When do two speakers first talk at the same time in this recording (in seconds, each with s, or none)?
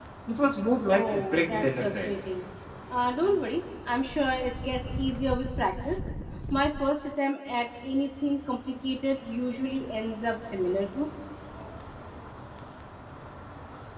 0.9 s